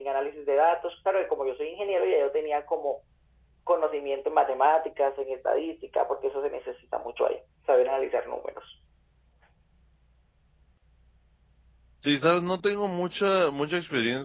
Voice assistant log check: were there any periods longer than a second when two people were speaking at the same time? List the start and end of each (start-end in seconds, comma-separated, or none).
none